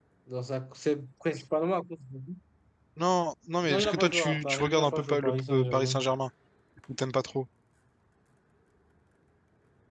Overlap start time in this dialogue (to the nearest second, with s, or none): 4 s